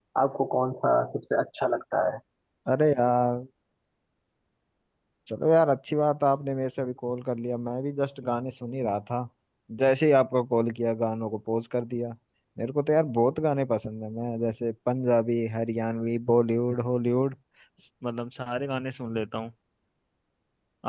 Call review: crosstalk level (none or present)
none